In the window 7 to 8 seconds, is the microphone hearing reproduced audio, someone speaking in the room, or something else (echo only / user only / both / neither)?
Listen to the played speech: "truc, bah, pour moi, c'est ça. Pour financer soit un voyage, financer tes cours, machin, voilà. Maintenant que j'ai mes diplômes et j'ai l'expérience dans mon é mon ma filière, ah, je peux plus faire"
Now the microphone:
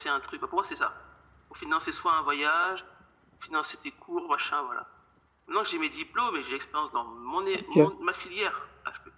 both